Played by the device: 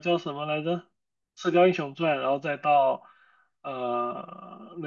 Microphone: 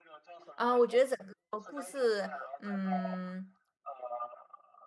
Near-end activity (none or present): present